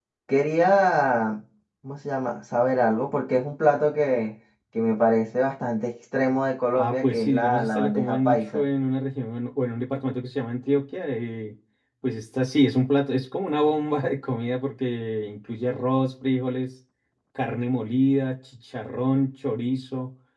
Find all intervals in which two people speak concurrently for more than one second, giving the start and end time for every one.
6.7-8.6

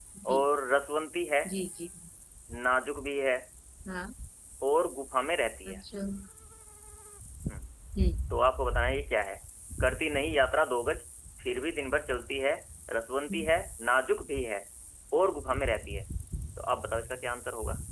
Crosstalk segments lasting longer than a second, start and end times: none

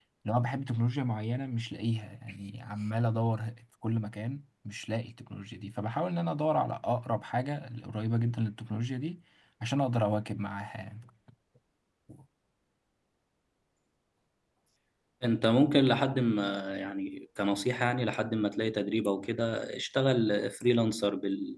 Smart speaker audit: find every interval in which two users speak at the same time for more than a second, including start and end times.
none

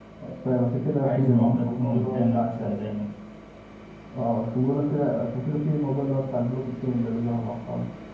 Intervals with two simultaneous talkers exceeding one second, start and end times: 1.0-2.9

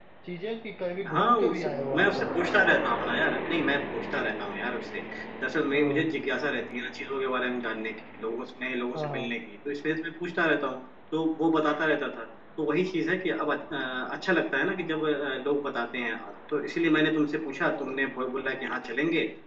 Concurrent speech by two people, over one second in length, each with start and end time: 1.1-2.3

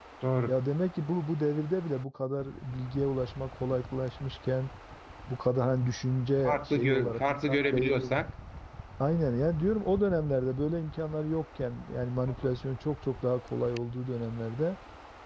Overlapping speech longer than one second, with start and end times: 6.4-8.1

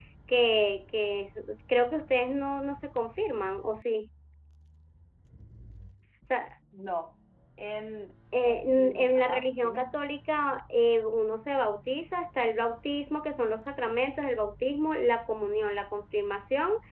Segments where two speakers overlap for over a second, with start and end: 8.4-9.9

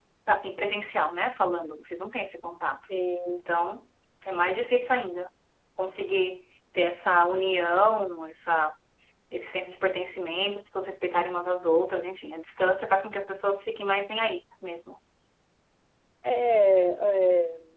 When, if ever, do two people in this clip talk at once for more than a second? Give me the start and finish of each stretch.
none

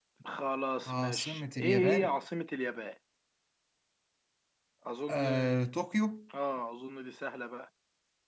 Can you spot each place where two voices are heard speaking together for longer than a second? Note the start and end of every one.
0.9-2.1

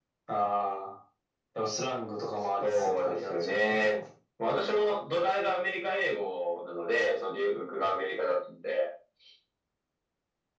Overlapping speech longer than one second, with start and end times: 2.6-4.0

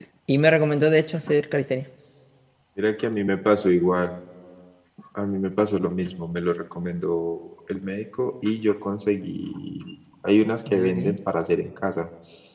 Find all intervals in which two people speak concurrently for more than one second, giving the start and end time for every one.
none

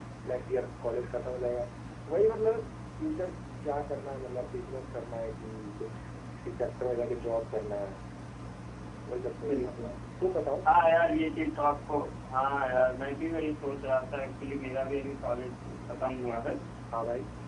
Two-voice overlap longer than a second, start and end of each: none

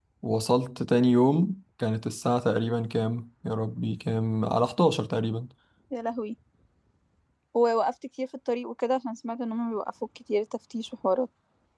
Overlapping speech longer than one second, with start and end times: none

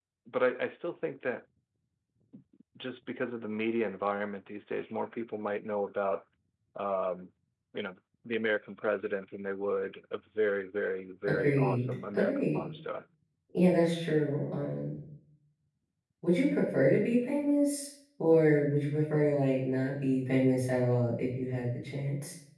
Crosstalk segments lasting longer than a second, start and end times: 11.3-12.6

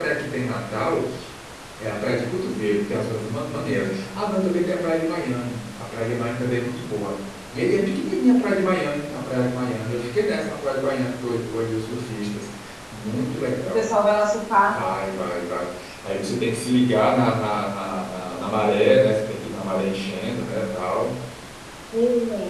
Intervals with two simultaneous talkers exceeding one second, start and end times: none

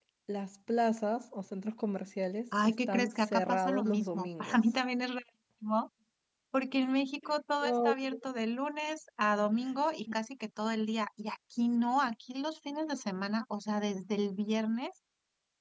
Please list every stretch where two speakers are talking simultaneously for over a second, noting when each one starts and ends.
2.6-4.6

